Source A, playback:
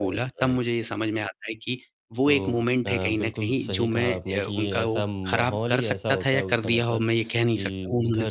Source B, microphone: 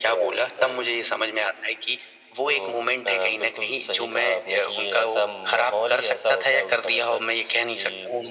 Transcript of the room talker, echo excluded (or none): none